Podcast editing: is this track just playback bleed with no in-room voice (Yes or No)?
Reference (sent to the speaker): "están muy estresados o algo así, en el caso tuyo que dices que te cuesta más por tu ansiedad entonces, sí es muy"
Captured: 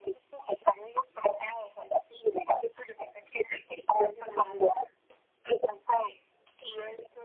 No